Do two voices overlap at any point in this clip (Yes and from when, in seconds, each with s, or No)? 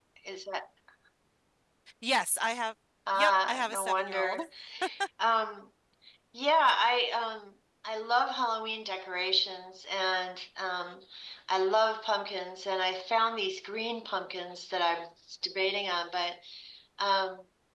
Yes, from 3.1 s